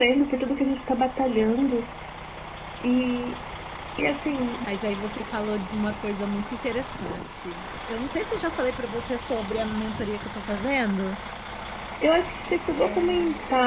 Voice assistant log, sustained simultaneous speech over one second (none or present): none